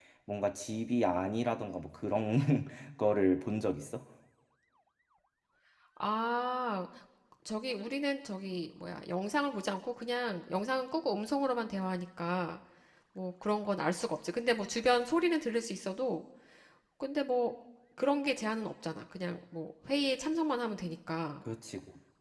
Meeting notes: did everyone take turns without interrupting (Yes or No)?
Yes